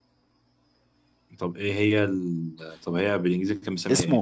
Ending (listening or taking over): taking over